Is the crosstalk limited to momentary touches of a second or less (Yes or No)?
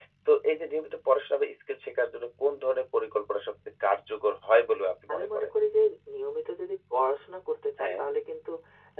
Yes